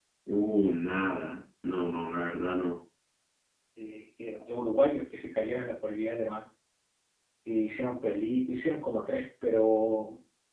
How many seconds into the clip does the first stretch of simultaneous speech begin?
none

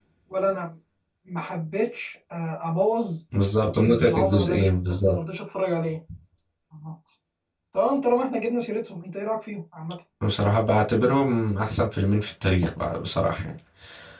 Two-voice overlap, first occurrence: 3.8 s

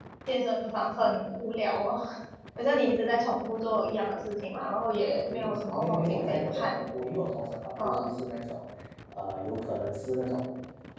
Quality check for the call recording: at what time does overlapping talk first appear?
5.3 s

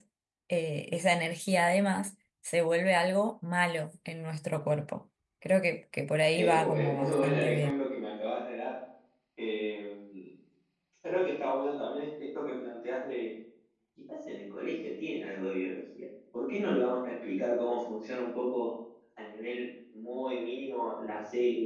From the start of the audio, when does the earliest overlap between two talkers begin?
6.3 s

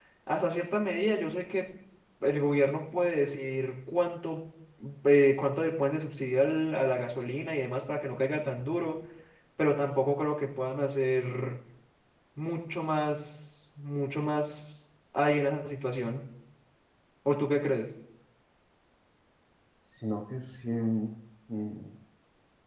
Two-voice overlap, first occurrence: none

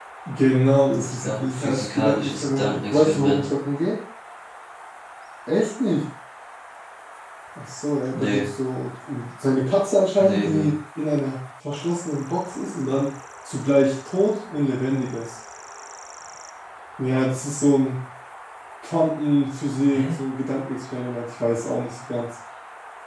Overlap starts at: 1.0 s

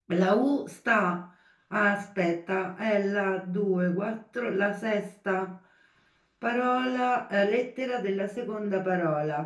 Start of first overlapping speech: none

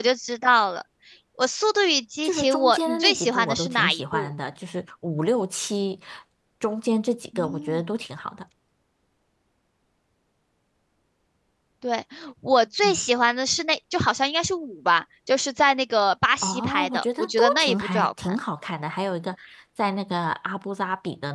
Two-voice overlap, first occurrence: 2.2 s

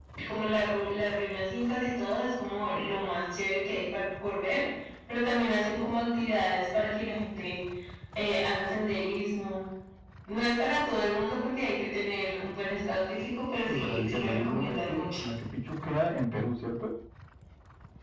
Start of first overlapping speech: 13.7 s

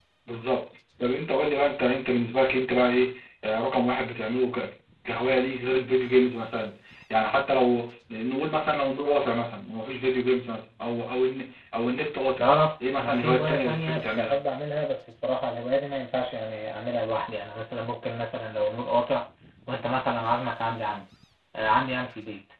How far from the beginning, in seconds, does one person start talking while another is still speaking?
12.9 s

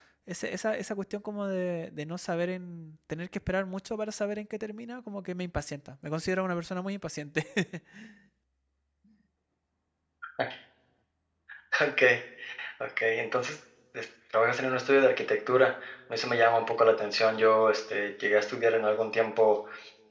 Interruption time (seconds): none

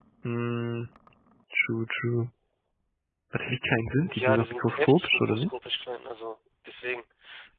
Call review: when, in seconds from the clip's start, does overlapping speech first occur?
4.1 s

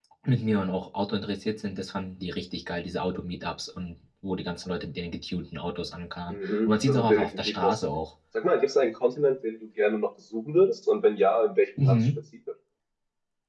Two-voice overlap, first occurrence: 6.3 s

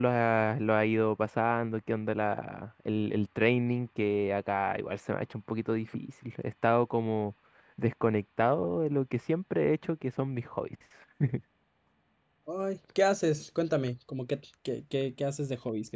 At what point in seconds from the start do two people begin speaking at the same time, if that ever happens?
none

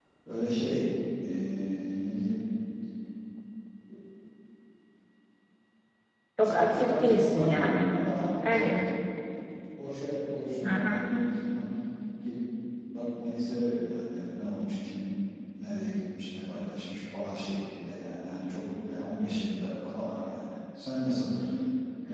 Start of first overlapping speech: 6.4 s

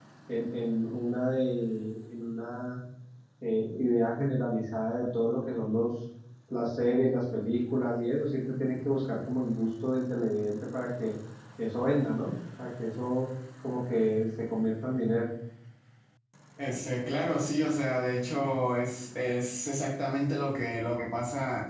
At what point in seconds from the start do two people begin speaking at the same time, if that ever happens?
none

